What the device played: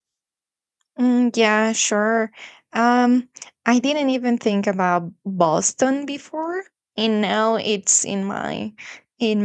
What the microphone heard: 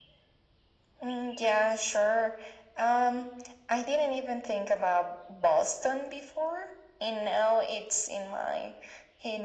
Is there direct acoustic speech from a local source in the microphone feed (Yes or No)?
No